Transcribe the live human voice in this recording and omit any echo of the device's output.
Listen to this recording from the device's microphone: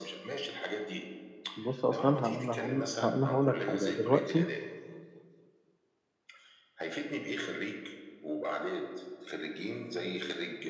بص اصلا هقول انا هقول انا هقول لك حاجه دلوقتي

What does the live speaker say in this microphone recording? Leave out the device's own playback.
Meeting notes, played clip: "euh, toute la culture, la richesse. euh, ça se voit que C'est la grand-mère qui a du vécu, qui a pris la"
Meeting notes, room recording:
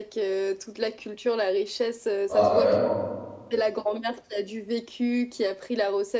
Ah, carrément.

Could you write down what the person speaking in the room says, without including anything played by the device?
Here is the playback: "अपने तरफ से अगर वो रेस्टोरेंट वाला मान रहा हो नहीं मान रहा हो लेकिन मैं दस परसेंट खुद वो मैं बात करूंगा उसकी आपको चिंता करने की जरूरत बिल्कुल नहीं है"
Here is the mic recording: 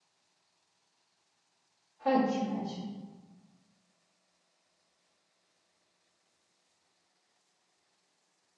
अच्छा अच्छा

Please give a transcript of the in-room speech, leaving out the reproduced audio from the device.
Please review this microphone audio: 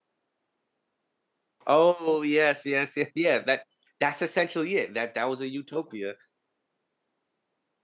Oh yes, yes, yes, yeah. That that's essentially it. That that was a utopia.

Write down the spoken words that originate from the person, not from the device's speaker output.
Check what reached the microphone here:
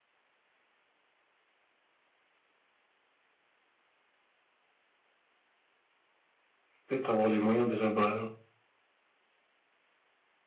peut-être avoir les moyens déjà bah,

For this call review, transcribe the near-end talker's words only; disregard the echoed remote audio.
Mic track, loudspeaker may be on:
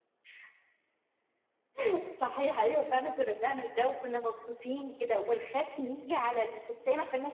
none

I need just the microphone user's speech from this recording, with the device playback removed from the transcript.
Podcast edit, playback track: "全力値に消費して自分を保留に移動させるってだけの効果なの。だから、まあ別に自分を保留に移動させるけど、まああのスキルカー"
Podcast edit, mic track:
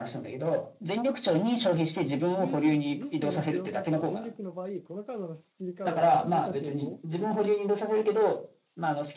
自分自身を使用した後、全力の場合、このカードのスキルカードのパラメータ値が5、

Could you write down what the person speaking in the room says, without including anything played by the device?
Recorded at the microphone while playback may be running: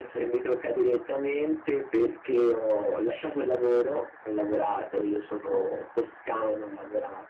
none

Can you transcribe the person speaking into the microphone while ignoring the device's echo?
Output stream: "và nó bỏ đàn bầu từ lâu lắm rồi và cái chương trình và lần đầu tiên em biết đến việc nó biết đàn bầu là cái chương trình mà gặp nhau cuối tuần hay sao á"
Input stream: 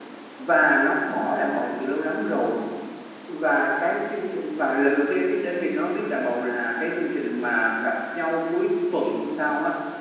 none

